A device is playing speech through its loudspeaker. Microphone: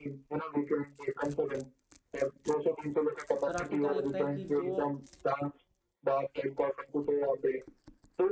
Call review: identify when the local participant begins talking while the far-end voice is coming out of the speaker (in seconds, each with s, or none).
3.5 s